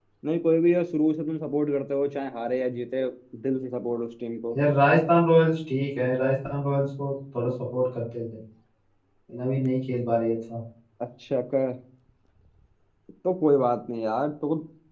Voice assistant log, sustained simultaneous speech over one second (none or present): none